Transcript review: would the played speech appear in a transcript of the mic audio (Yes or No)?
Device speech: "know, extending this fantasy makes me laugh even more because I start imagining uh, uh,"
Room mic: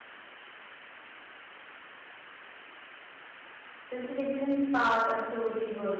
No